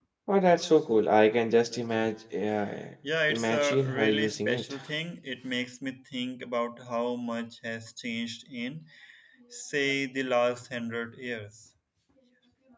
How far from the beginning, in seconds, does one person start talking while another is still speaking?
3 s

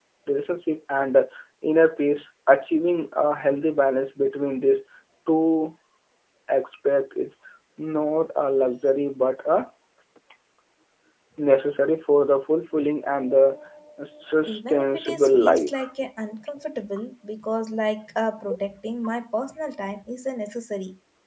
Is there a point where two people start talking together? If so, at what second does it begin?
14 s

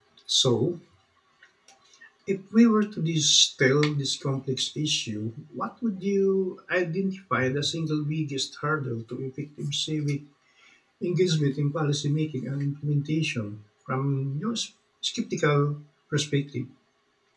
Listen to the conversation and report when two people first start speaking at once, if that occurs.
none

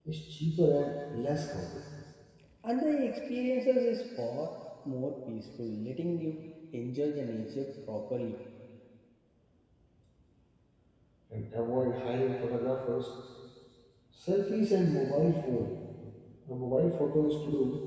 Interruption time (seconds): none

